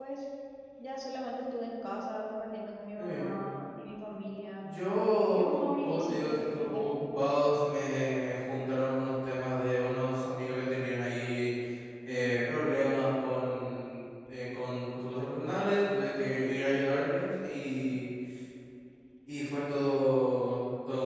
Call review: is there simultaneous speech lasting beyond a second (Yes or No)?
Yes